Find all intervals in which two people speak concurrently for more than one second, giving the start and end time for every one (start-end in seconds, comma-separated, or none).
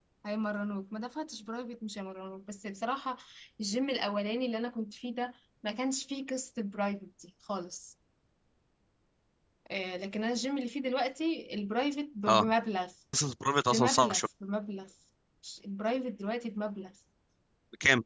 none